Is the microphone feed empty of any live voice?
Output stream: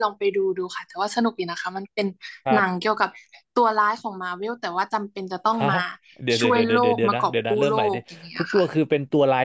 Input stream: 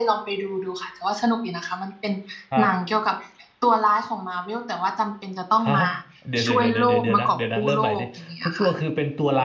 Yes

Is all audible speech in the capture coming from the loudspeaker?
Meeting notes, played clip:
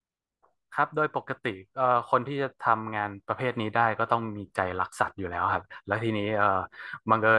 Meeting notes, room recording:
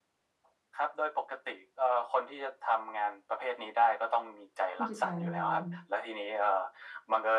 No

